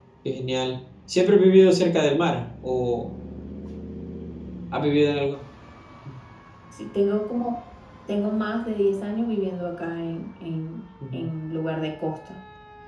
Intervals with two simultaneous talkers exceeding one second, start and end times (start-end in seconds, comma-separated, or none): none